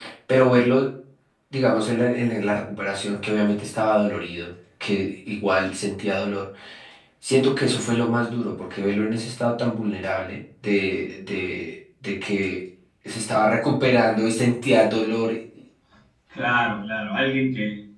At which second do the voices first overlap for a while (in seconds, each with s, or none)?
none